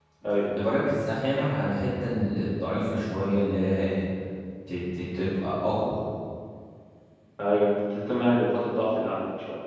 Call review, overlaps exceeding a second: none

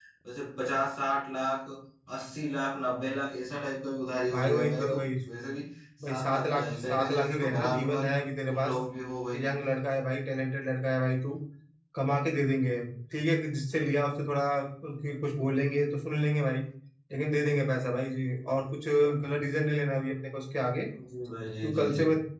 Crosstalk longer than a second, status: present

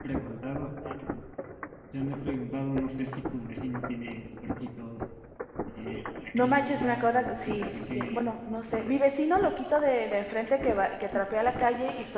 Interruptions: present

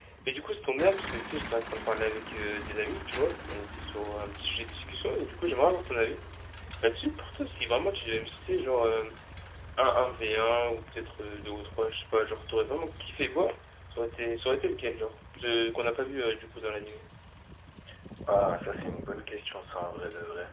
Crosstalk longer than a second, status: none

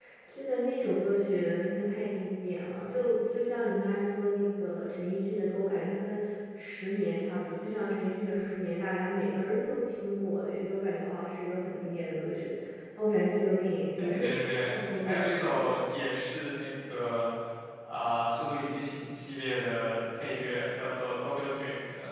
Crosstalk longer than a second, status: present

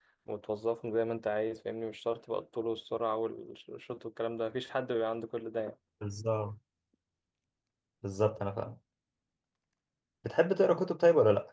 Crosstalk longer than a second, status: none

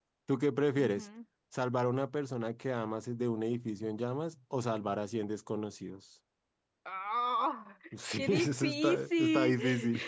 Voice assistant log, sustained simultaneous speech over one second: present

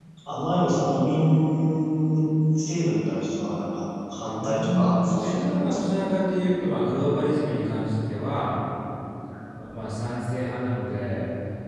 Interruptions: present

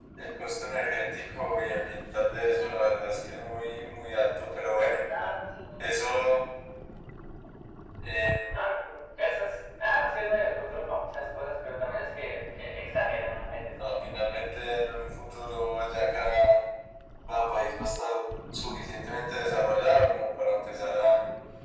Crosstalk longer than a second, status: none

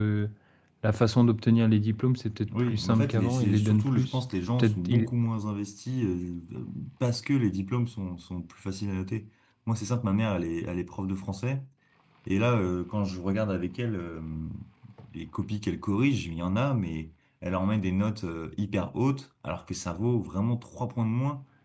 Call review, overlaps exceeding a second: present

